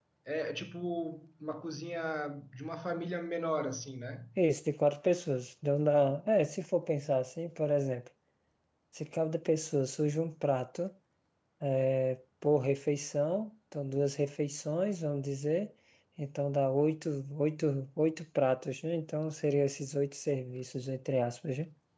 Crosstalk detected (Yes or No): No